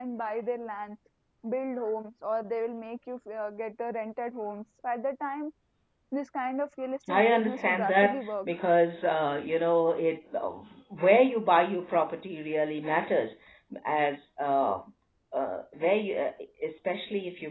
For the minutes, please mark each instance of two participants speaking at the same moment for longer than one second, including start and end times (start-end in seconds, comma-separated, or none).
7.1-8.3